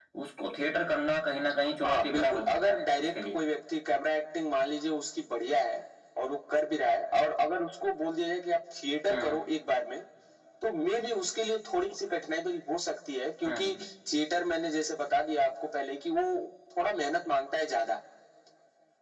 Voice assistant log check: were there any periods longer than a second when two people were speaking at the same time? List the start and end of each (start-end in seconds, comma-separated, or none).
1.8-3.4